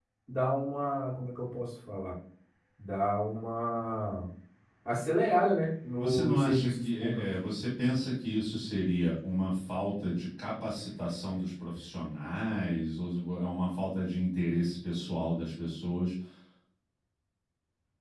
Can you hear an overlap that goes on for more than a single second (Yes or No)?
Yes